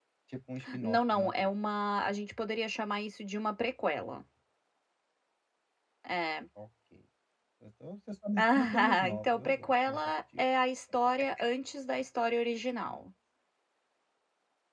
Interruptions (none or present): present